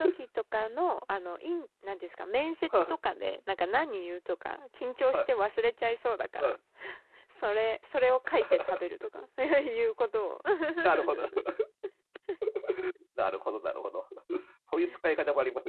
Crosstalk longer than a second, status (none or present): none